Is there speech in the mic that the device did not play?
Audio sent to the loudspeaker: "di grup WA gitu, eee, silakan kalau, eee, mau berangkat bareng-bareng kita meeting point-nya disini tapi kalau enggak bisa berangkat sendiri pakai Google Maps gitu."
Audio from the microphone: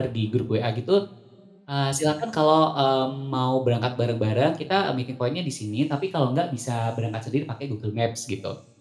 No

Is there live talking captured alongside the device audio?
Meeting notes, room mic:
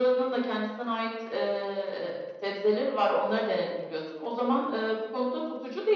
No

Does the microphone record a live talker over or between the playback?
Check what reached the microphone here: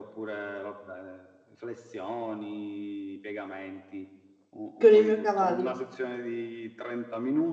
Yes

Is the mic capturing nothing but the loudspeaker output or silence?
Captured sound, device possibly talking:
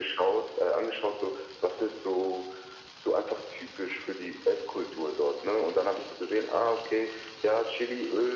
Yes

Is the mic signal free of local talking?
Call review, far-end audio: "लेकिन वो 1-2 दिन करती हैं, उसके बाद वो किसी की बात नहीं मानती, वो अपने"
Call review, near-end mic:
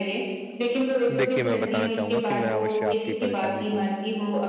No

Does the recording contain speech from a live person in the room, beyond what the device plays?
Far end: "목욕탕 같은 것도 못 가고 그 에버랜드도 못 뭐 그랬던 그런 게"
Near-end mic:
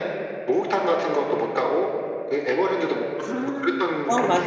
Yes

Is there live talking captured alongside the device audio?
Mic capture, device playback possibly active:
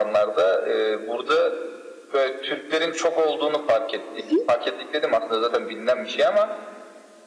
Yes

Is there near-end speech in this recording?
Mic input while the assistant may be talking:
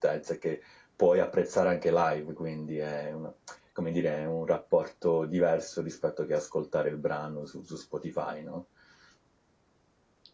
Yes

